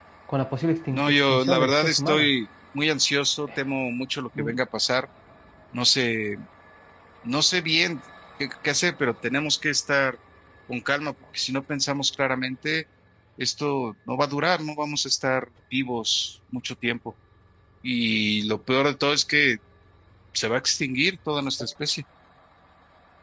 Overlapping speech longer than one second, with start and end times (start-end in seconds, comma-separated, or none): 0.9-2.3